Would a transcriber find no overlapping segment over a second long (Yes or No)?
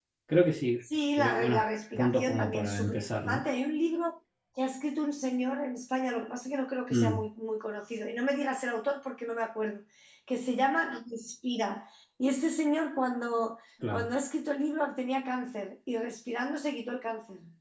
No